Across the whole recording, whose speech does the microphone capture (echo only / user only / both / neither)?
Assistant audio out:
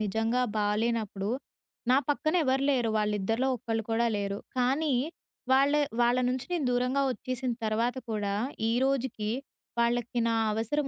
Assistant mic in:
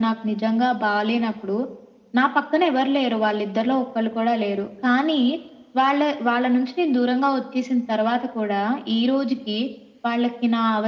echo only